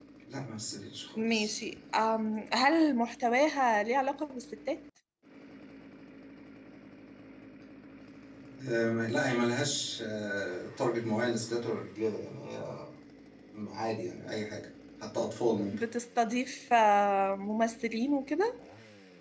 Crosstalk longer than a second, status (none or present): none